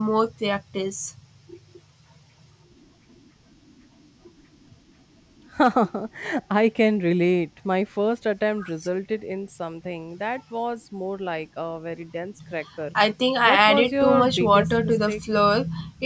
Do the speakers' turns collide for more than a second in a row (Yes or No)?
Yes